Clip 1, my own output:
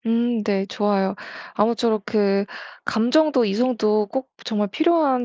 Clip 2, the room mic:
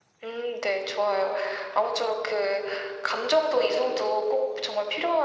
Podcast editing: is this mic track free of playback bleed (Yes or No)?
No